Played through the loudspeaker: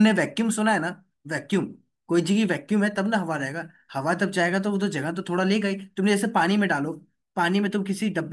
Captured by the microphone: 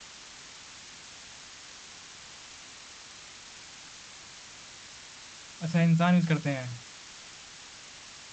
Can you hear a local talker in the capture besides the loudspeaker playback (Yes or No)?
Yes